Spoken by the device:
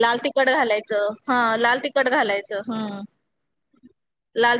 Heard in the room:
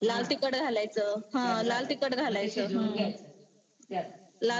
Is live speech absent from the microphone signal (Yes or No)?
No